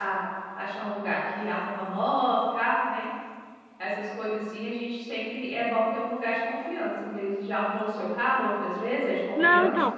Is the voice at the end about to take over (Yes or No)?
Yes